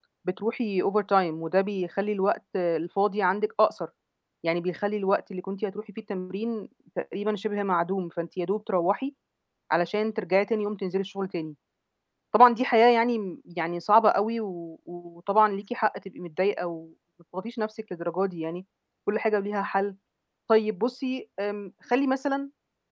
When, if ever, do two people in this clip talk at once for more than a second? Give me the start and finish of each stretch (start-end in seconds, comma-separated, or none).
none